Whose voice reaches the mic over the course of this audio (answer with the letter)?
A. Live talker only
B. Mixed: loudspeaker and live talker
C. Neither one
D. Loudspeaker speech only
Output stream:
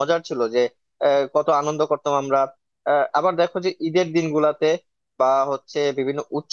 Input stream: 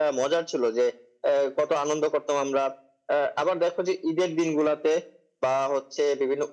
D